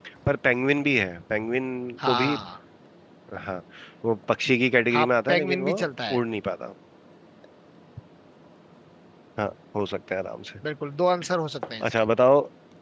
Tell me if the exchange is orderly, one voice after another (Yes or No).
No